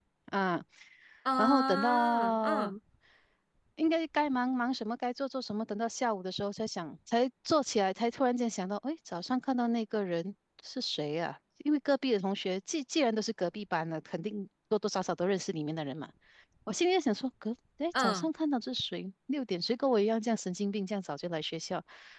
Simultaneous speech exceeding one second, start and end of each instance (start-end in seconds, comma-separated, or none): 1.4-2.7